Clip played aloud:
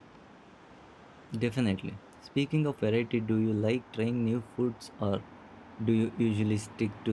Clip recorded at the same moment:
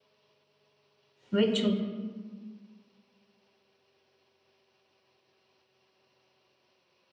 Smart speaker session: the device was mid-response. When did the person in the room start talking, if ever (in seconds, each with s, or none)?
1.3 s